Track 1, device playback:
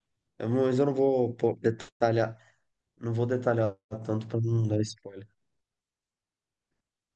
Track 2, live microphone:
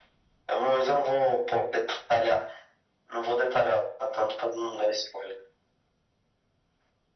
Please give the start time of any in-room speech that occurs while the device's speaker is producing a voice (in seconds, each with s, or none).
none